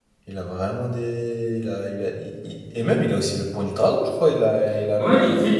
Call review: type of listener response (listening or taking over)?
taking over